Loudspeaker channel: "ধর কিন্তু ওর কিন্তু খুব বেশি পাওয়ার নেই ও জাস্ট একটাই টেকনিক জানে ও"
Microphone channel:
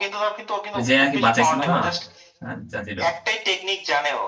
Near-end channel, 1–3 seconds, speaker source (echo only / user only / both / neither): both